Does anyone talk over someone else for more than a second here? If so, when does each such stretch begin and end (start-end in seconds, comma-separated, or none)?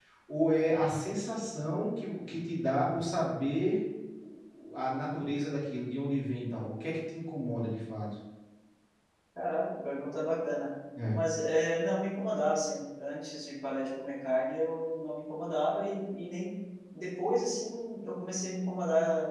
none